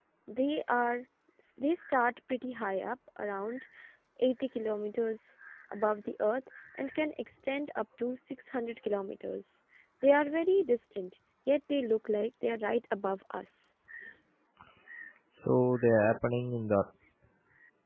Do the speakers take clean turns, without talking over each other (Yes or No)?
Yes